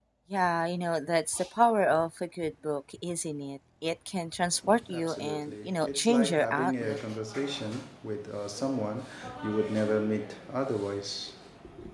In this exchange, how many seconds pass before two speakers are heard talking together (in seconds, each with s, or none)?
4.9 s